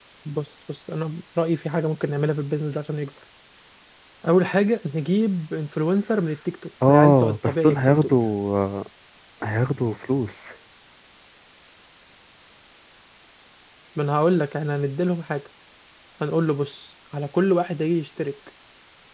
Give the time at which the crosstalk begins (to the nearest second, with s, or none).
7 s